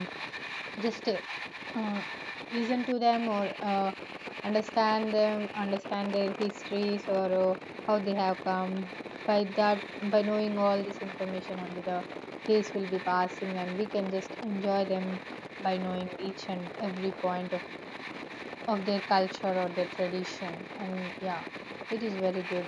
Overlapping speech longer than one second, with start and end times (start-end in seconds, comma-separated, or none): none